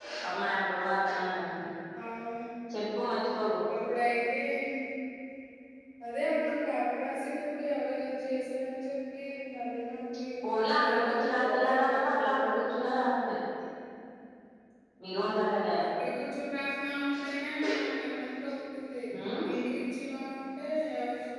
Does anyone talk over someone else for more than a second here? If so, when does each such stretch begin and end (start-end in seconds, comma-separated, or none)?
10.6-12.3